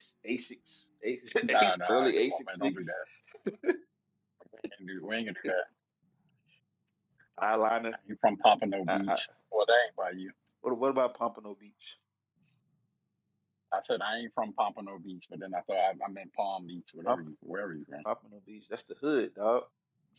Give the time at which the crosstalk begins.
1.4 s

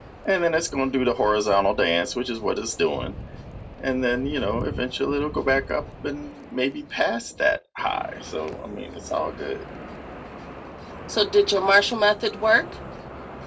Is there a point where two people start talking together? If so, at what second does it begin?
none

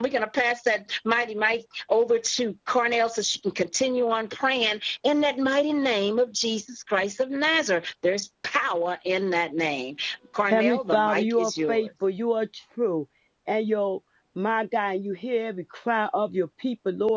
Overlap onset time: 10.5 s

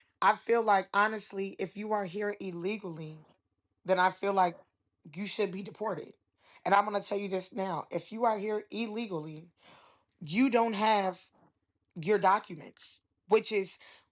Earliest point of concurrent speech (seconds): none

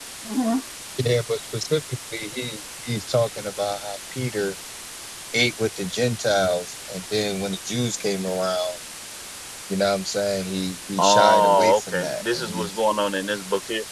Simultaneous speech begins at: 11.0 s

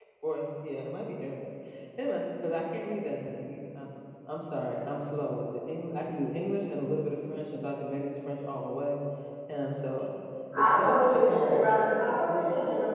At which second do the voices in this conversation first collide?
10.6 s

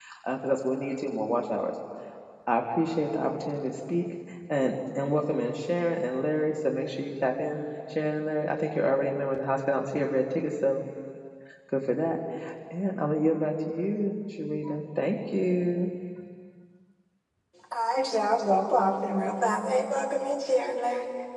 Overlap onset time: none

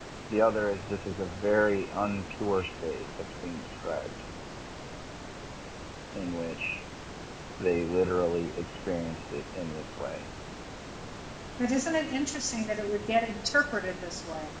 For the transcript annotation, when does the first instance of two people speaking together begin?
none

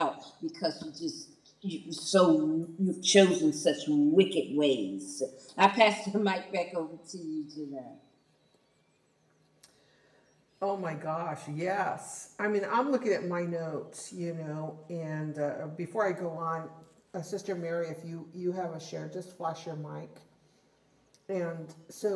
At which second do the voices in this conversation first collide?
none

